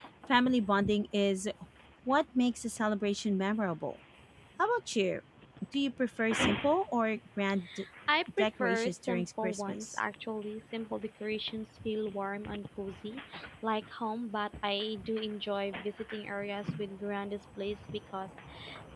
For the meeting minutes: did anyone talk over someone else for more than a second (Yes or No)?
Yes